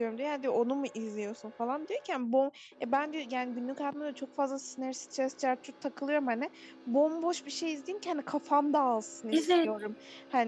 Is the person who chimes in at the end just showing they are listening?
Yes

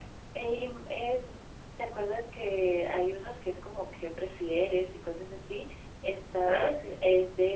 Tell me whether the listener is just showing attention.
Yes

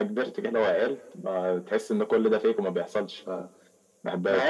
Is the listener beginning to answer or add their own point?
Yes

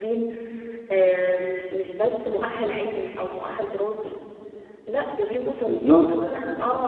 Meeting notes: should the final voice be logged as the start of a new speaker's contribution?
No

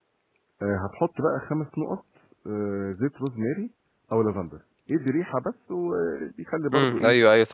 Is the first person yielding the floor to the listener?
Yes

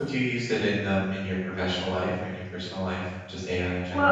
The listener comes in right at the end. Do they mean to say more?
Yes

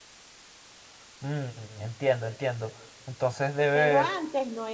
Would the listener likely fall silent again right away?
No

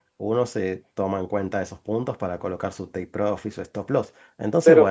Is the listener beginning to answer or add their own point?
Yes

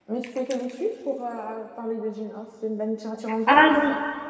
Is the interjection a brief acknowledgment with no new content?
No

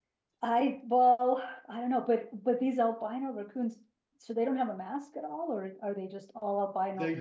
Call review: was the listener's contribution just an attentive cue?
No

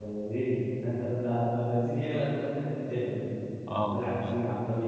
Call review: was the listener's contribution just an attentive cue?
Yes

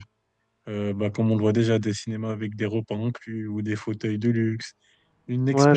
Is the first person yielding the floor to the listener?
Yes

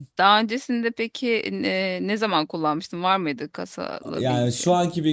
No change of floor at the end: No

